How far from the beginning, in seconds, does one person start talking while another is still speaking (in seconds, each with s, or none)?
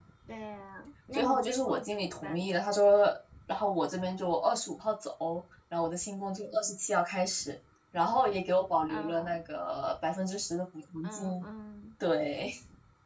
1.1 s